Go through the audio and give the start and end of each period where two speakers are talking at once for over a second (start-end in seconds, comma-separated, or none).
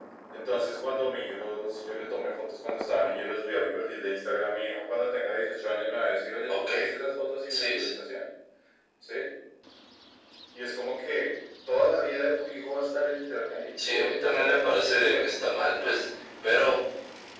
13.8-15.8